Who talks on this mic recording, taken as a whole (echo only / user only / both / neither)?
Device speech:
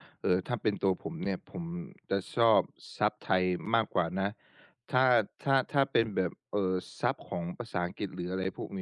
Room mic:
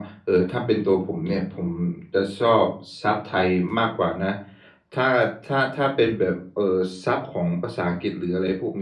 echo only